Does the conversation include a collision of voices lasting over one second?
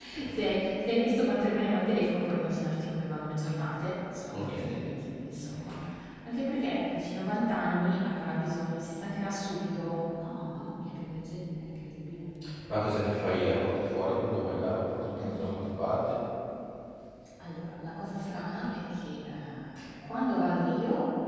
No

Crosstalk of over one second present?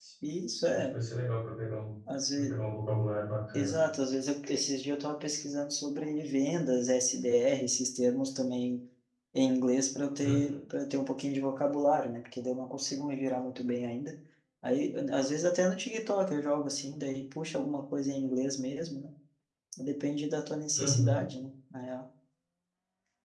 No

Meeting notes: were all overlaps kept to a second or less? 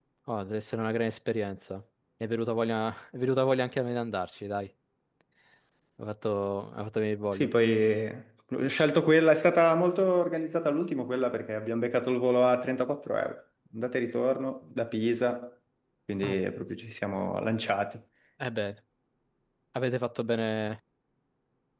Yes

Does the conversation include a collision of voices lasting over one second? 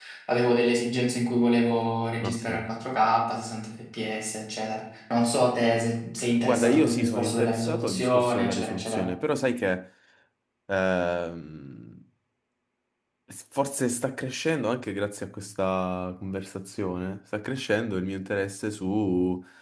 Yes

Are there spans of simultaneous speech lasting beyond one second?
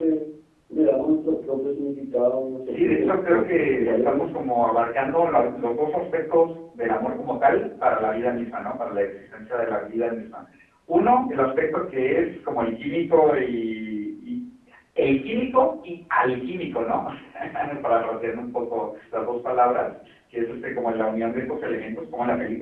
Yes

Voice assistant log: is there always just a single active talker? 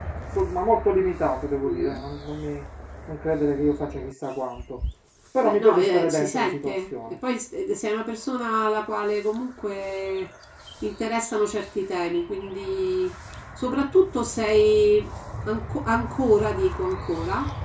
No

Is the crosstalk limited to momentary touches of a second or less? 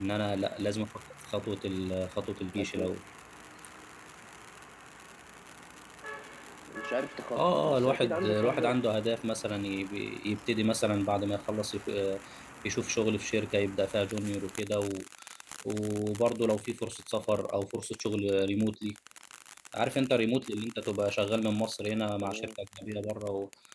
No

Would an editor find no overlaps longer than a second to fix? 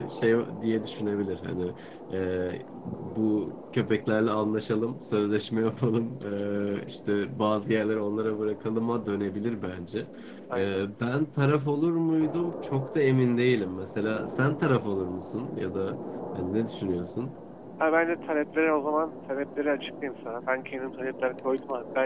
Yes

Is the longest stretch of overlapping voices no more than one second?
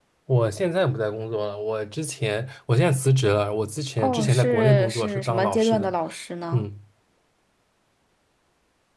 No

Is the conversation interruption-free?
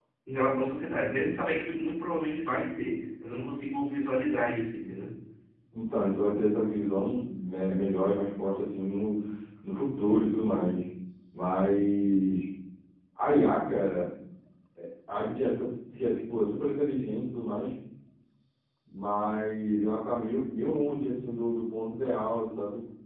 Yes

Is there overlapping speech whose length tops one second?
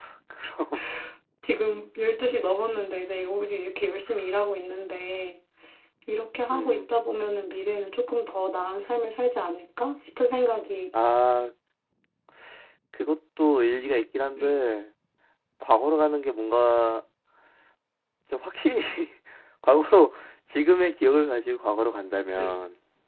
No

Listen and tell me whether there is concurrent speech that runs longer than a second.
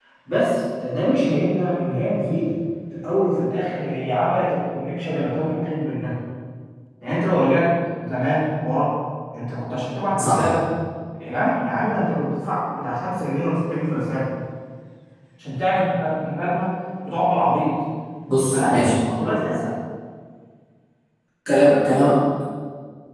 No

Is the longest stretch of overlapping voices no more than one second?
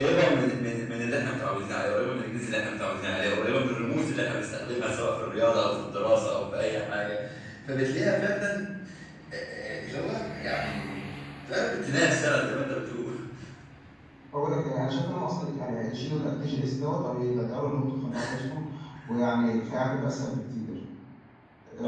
Yes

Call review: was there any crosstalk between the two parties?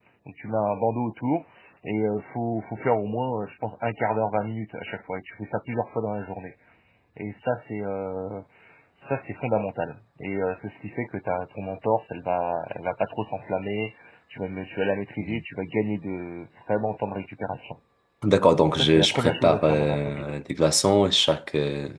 Yes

